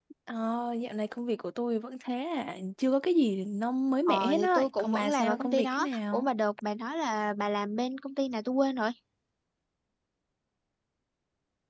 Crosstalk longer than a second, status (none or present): present